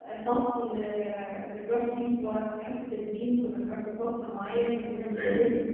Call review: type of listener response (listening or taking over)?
listening